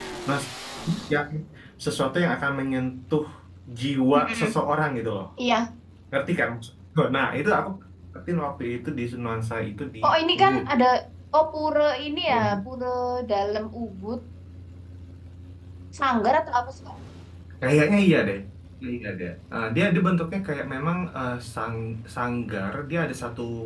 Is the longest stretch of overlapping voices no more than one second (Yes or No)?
Yes